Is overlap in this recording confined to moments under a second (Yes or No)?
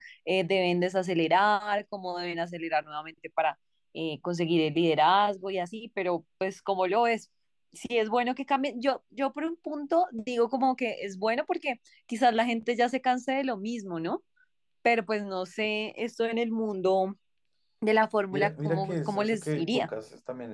No